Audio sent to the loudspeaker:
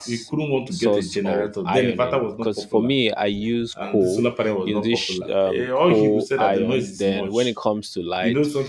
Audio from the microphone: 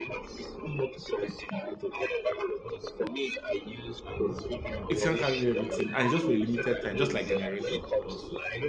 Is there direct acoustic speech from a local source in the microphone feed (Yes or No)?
Yes